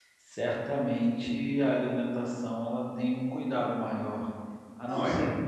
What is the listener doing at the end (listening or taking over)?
listening